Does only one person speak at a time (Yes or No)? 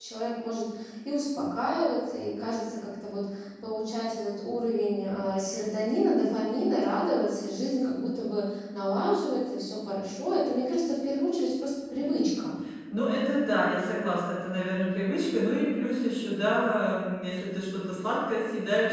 Yes